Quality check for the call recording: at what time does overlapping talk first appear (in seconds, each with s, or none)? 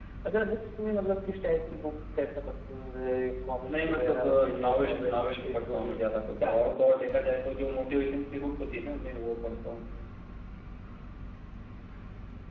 3.7 s